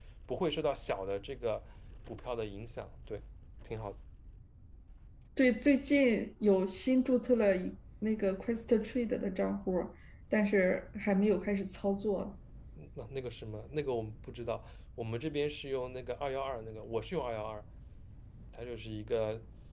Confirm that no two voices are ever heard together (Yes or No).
Yes